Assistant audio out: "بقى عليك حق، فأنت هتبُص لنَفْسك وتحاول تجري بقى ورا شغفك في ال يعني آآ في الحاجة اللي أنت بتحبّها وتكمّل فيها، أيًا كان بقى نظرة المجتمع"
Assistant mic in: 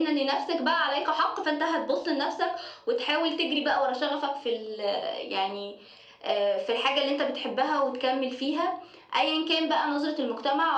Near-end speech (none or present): none